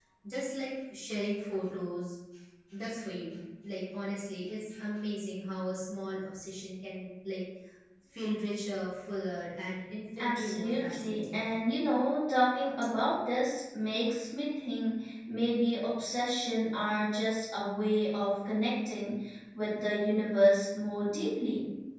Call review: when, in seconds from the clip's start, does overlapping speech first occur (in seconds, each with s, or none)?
10.2 s